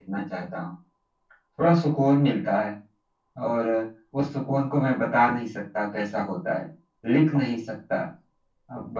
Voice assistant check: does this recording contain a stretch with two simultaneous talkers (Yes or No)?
No